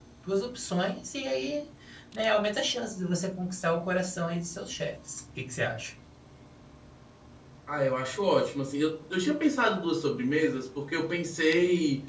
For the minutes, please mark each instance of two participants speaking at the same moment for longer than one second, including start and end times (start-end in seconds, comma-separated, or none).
none